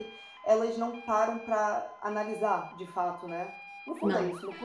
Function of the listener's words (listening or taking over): listening